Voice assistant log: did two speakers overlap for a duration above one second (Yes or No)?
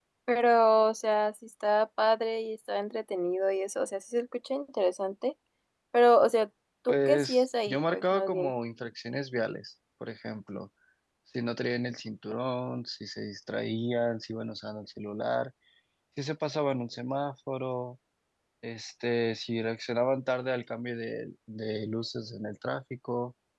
Yes